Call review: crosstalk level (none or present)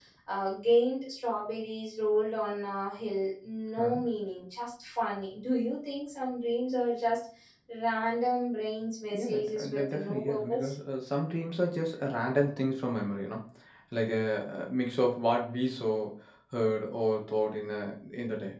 present